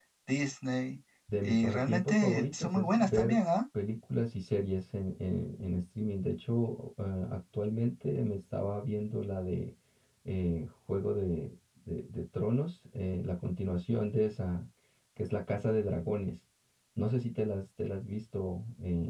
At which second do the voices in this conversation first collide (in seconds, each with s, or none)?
1.3 s